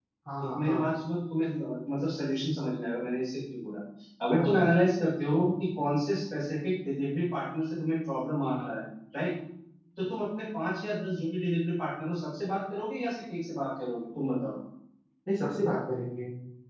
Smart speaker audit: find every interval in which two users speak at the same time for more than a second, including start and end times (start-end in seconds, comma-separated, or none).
none